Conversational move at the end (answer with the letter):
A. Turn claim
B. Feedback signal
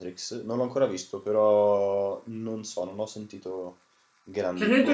A